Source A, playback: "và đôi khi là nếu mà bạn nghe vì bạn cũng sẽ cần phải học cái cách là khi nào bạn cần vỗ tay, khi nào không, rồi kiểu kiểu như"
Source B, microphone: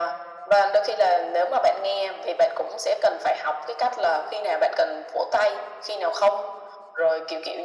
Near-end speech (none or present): none